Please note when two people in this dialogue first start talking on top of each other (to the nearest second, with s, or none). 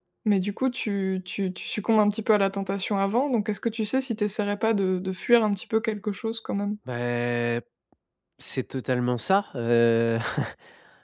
none